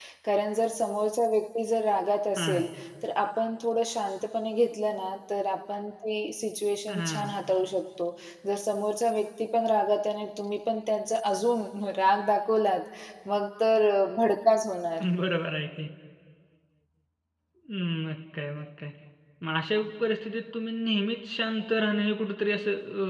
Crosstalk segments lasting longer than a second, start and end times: none

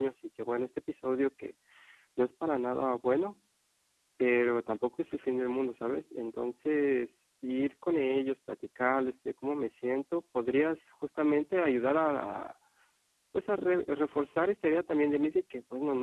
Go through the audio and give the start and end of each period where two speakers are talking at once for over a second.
none

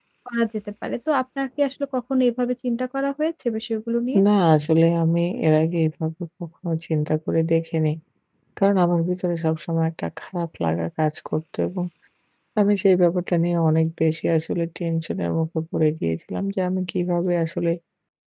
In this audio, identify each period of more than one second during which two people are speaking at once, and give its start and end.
none

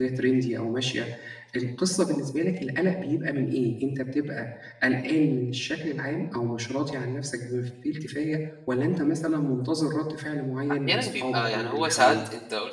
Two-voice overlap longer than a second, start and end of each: 10.9-12.1

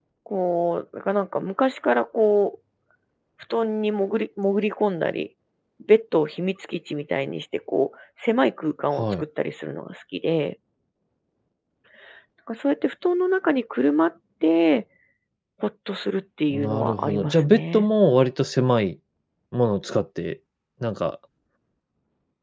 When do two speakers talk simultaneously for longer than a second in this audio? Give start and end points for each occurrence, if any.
16.5-17.9

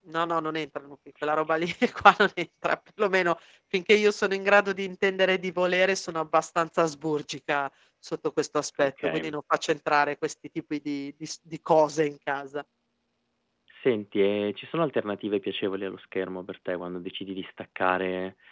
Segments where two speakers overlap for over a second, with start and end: none

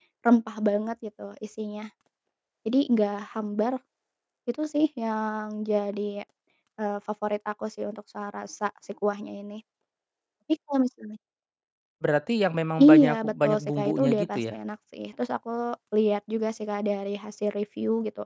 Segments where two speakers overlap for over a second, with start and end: 12.8-14.5

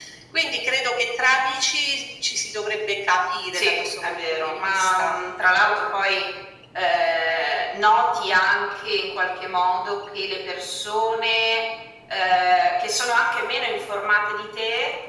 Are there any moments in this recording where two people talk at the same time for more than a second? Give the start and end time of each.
3.5-5.2

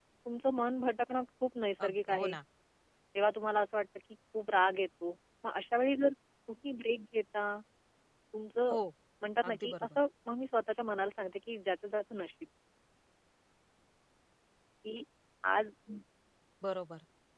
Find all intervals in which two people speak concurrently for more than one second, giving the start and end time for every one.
none

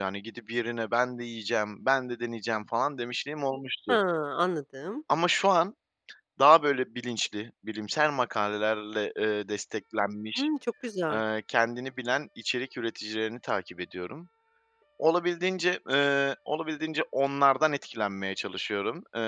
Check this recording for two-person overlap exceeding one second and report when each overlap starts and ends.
none

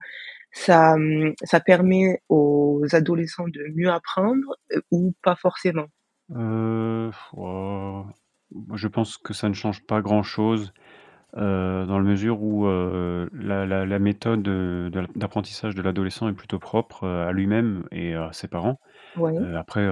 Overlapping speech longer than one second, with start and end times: none

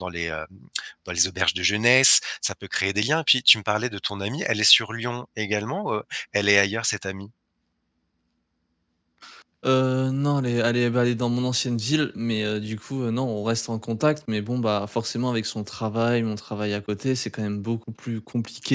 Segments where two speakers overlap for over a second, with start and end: none

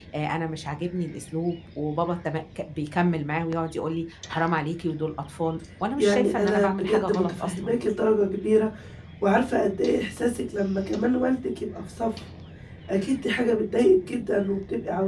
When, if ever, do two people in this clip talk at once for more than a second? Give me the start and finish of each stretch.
6.0-7.8

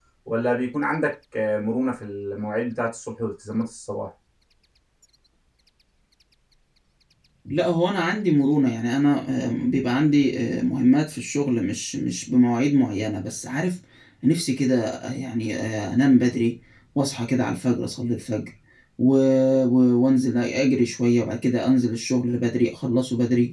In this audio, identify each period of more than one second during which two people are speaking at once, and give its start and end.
none

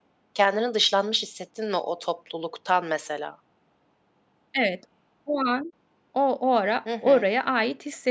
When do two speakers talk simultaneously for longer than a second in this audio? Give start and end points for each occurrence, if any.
none

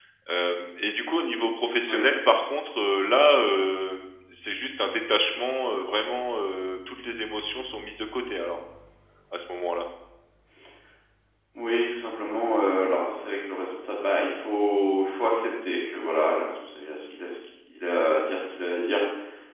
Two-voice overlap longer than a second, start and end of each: none

